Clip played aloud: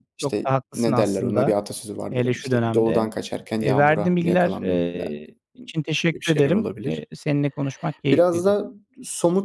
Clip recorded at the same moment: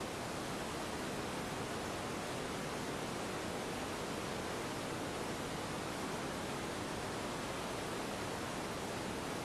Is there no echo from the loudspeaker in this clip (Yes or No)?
Yes